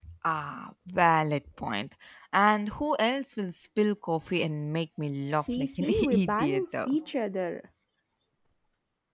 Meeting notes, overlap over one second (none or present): present